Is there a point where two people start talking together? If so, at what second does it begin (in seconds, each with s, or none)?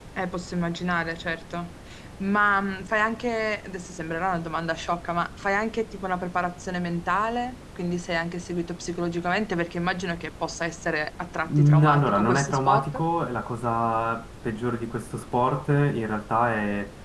11.4 s